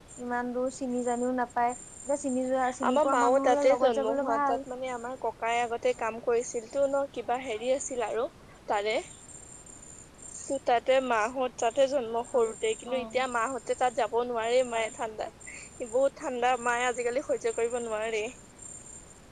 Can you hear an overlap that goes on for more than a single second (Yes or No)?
Yes